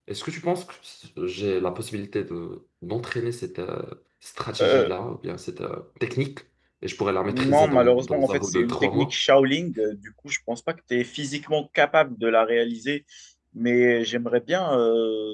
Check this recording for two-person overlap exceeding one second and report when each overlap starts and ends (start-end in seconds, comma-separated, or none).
7.3-9.1